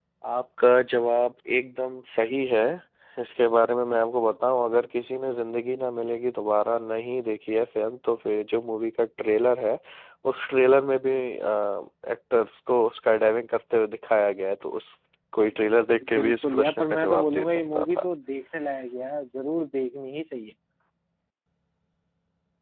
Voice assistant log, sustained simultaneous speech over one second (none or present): present